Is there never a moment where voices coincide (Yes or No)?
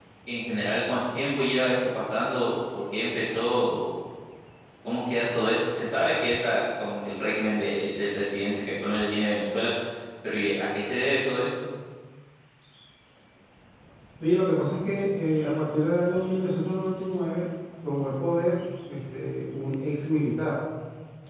Yes